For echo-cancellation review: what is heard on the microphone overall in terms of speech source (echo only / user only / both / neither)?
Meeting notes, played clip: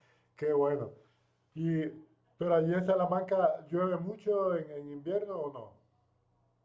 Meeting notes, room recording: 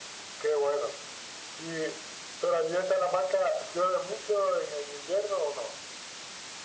echo only